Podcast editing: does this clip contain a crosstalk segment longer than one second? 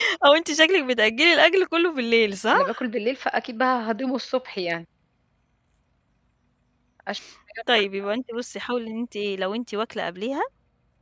No

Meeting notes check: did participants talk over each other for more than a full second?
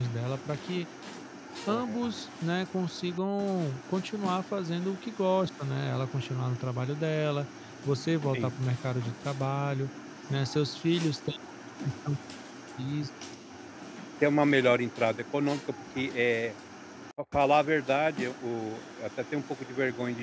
No

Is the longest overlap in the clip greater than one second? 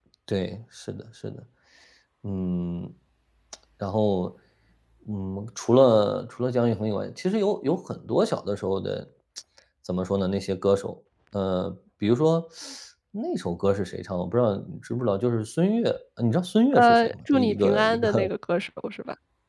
Yes, from 16.7 s

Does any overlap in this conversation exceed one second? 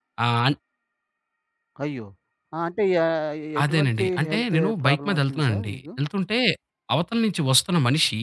Yes, from 3.7 s

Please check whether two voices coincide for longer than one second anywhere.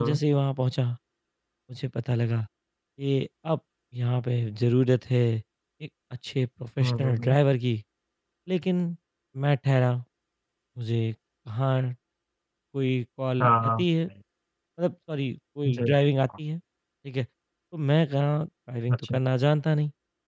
No

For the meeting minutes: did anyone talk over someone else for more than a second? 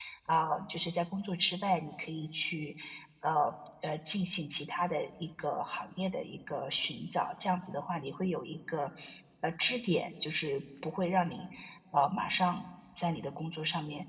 No

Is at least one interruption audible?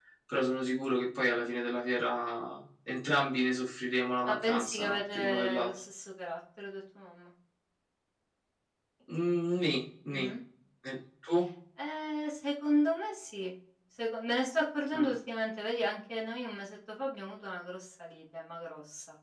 Yes, from 4.3 s

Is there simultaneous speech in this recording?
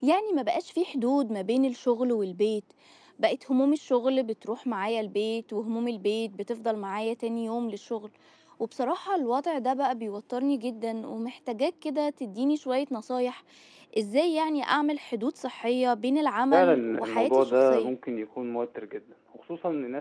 Yes, from 16.5 s

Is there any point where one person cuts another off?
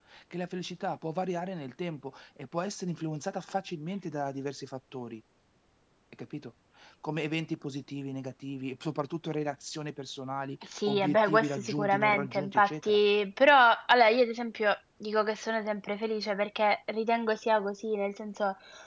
Yes, from 10.6 s

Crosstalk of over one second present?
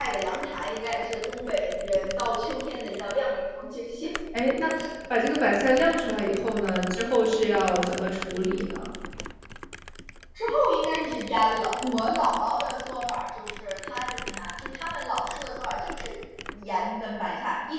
No

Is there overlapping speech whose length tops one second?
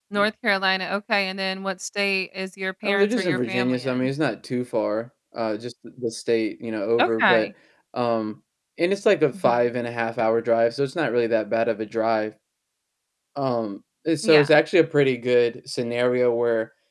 Yes, from 2.8 s

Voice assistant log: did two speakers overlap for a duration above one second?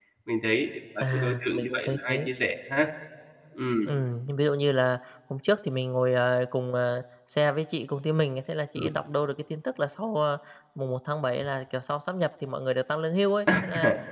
Yes, from 1.0 s

